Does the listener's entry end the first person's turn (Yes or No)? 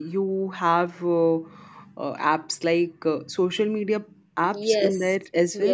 Yes